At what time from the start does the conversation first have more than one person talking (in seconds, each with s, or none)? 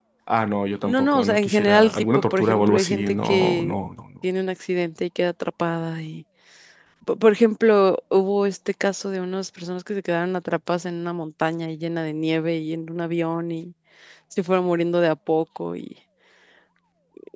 0.8 s